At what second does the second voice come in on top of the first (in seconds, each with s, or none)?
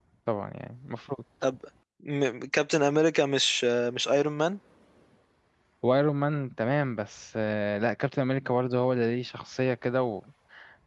none